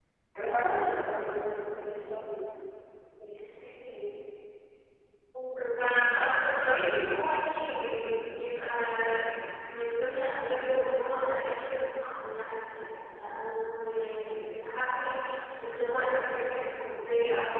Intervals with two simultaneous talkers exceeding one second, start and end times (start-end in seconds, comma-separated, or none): none